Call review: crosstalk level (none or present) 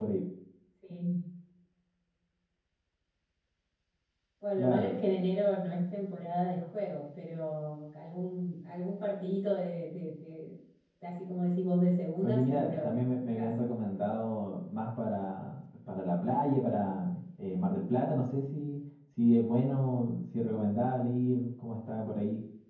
present